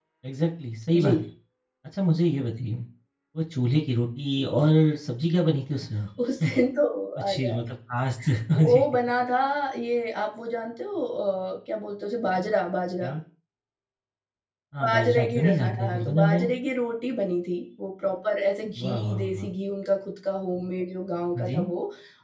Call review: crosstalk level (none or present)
present